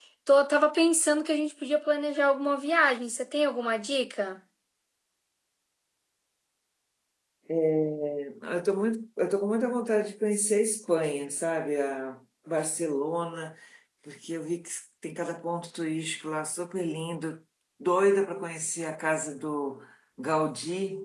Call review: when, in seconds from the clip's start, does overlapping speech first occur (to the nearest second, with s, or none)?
none